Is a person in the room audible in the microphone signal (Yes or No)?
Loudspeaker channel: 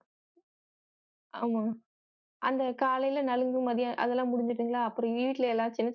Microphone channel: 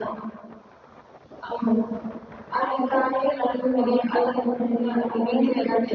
No